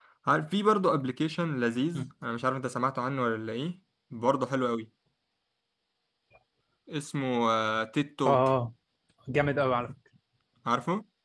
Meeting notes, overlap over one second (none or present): none